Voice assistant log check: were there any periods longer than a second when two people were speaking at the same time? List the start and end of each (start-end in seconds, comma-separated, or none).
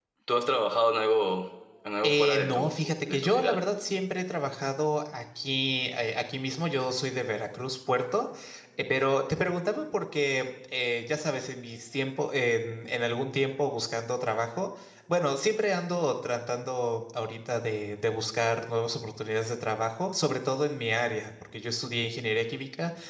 2.0-3.6